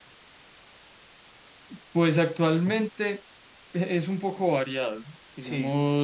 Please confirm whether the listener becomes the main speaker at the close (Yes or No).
No